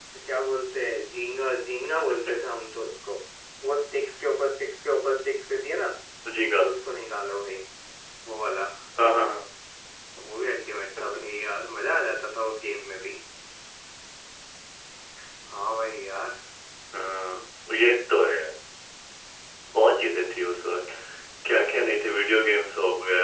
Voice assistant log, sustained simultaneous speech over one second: none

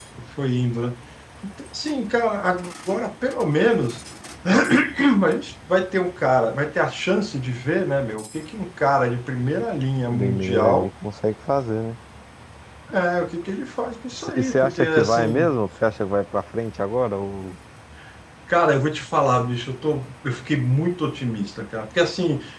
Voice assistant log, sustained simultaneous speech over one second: present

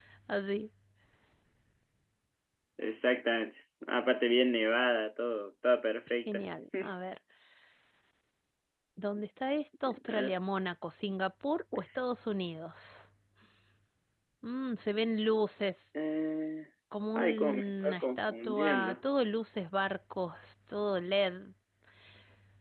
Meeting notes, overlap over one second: present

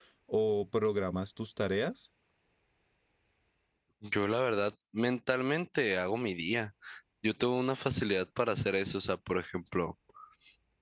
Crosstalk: none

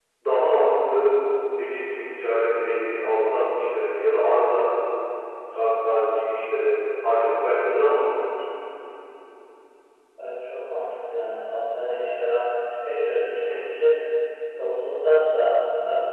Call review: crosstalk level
none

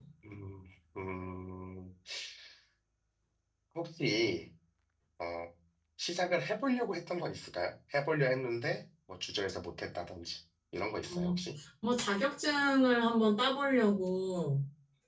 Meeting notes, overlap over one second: none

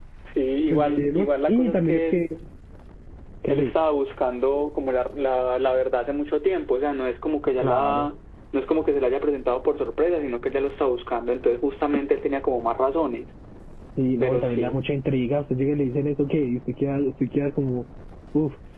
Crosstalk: present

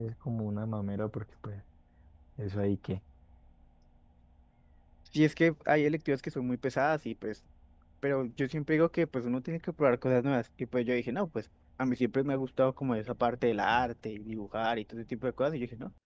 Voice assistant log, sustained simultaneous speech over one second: none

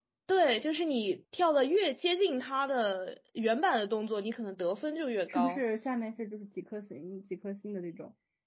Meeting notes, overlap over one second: none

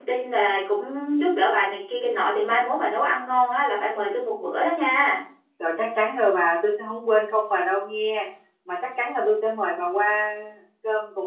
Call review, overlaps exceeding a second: none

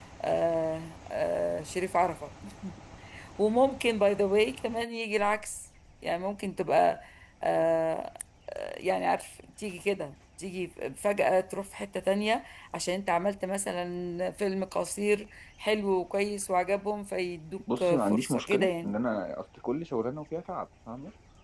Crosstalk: present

